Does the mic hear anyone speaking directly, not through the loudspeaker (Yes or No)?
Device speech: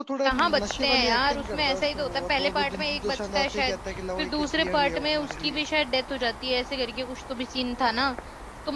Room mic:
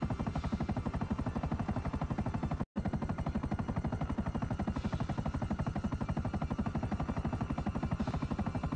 No